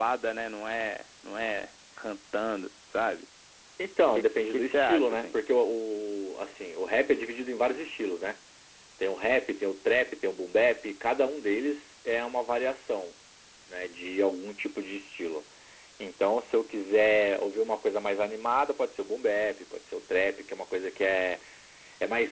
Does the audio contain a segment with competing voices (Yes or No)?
Yes